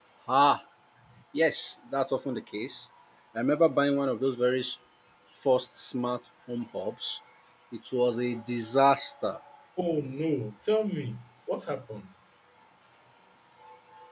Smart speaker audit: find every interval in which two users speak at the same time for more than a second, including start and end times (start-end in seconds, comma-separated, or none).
none